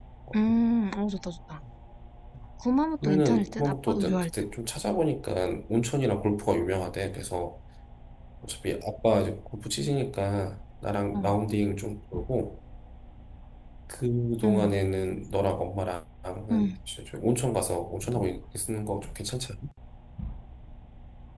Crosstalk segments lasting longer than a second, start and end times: 3.0-4.3

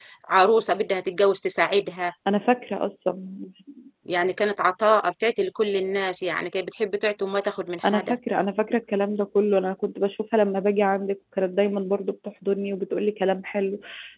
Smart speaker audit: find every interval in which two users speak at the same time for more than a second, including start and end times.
none

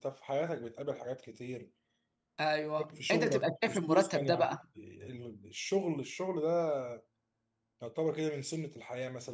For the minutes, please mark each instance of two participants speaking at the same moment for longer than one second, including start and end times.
3.1-4.5

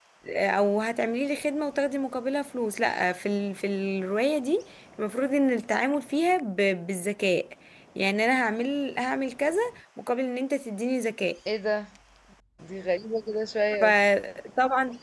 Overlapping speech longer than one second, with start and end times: none

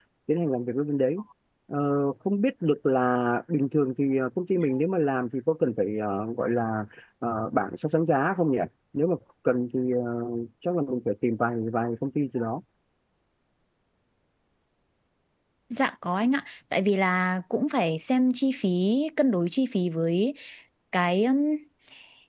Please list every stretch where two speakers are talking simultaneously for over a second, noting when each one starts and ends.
none

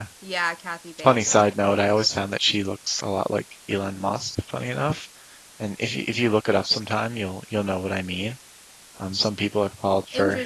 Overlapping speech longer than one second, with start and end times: none

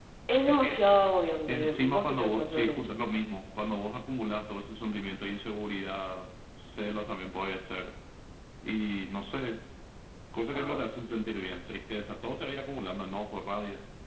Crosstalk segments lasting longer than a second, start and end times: 1.5-2.9

